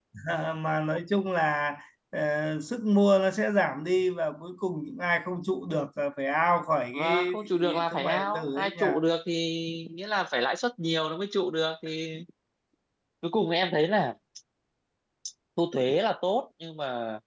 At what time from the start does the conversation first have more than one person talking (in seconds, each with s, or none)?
6.9 s